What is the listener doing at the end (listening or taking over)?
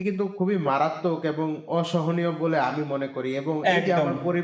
listening